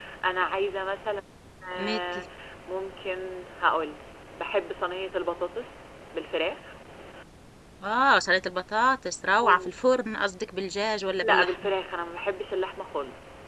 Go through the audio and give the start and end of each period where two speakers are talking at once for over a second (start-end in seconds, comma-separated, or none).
none